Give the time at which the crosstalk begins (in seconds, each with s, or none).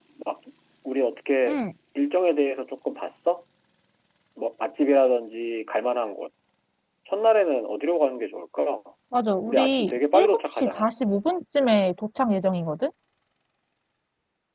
9.4 s